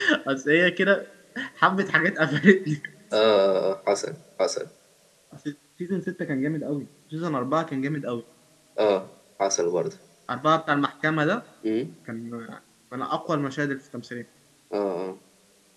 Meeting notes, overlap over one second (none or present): none